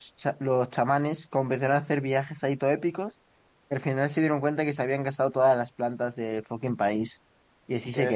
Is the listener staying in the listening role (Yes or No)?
No